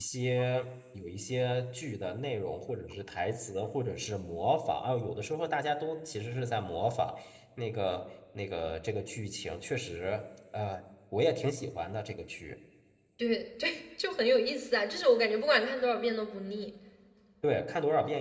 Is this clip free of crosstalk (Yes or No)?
Yes